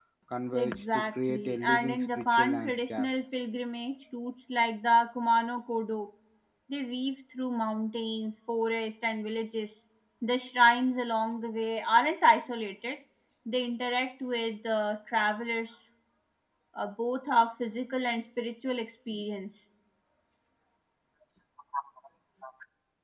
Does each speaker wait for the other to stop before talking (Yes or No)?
No